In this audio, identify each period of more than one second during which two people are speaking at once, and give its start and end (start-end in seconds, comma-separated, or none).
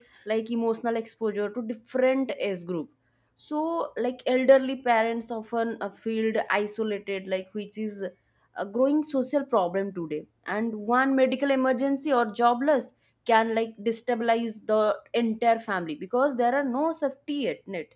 none